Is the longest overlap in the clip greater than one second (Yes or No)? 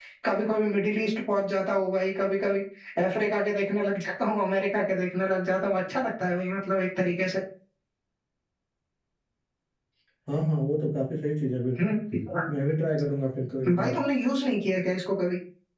No